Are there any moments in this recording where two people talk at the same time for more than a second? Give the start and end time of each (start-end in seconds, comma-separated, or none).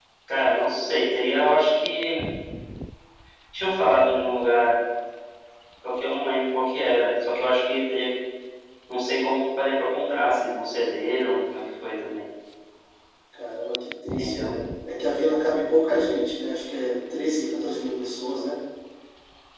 none